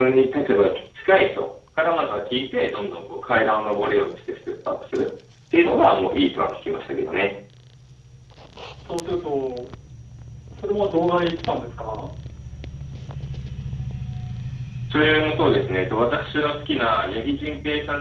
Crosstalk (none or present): none